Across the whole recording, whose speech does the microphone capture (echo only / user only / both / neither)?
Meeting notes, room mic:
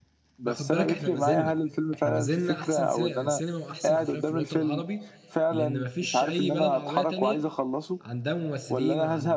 both